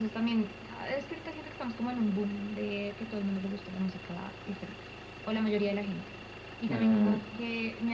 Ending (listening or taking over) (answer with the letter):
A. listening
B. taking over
A